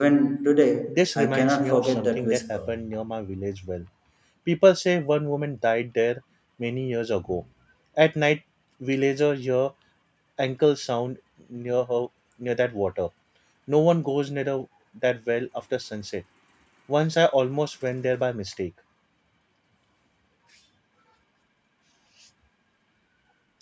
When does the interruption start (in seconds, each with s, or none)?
0.9 s